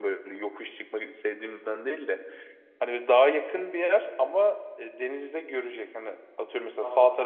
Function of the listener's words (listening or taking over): listening